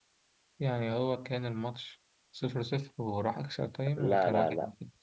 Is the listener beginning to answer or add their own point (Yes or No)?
Yes